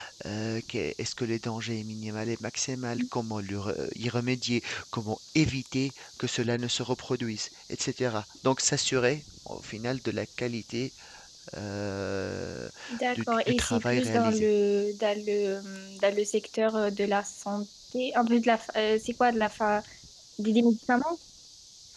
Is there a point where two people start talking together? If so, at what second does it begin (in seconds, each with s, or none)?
13.2 s